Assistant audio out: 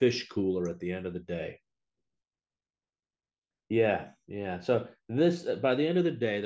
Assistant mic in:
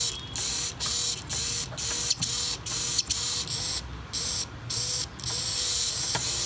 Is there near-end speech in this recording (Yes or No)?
No